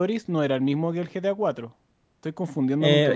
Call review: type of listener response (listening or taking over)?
taking over